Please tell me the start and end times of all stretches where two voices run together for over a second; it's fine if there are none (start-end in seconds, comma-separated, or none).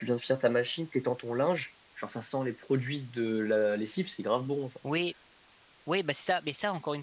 none